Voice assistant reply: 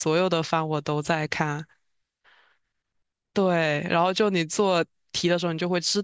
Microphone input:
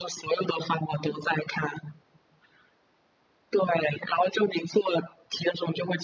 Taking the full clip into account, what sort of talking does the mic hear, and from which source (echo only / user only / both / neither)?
echo only